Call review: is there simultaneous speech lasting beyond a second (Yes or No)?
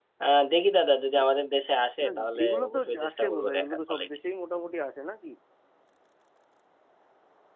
Yes